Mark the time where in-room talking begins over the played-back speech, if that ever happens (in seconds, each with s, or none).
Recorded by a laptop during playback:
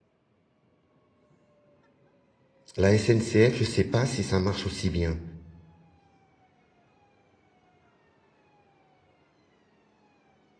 2.8 s